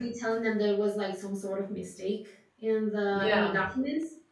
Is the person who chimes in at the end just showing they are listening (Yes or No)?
Yes